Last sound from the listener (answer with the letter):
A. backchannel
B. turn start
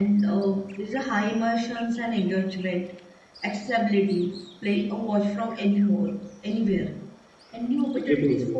A